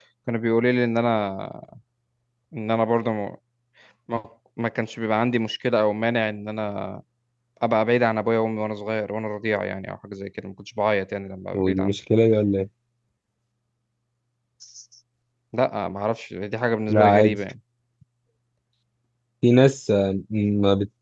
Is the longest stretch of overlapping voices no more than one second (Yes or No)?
Yes